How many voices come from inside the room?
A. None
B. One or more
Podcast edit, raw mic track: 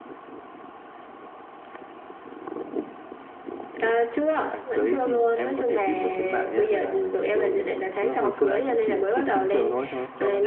A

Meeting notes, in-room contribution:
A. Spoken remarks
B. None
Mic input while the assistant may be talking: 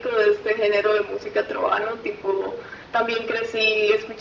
B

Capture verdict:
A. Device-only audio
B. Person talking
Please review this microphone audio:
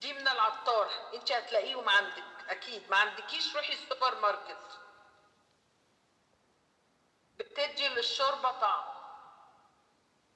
A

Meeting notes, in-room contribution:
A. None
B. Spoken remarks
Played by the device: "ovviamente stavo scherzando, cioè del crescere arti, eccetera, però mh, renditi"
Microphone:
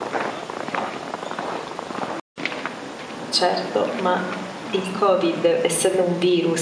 B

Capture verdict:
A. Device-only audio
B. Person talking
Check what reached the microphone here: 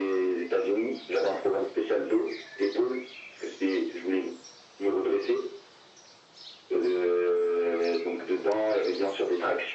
A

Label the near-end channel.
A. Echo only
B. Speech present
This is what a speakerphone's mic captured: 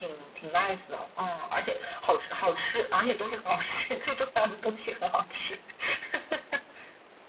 A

